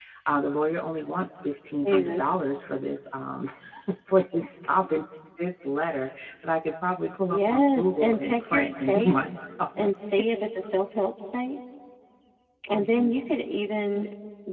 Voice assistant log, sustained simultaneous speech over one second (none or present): present